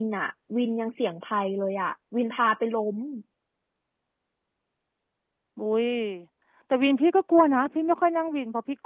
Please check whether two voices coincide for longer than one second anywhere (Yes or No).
No